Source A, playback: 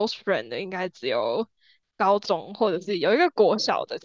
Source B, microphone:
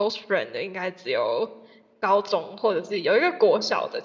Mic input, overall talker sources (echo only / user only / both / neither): echo only